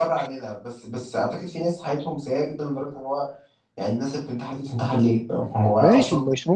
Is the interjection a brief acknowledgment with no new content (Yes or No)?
No